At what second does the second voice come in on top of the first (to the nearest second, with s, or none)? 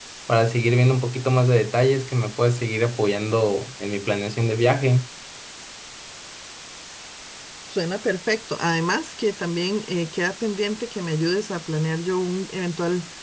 none